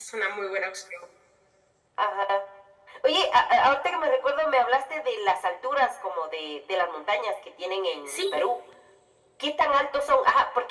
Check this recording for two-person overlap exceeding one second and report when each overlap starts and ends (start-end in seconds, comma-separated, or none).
none